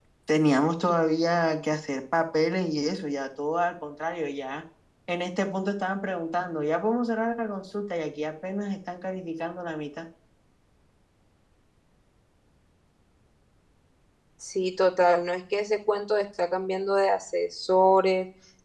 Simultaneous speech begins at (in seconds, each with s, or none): none